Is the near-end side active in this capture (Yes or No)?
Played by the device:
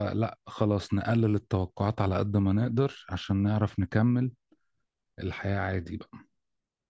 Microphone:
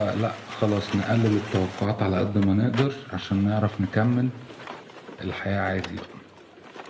No